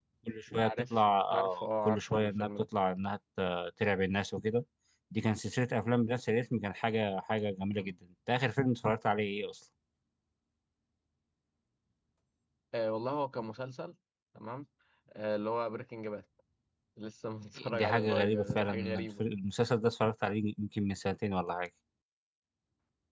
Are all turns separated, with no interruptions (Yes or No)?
No